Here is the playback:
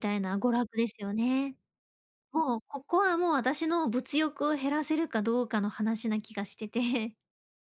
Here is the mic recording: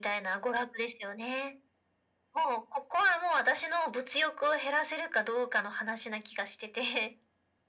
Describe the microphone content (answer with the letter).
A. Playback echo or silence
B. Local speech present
A